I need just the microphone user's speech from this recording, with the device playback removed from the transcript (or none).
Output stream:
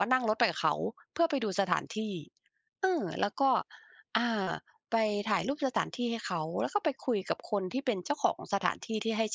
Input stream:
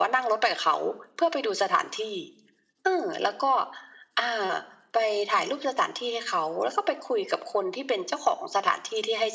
none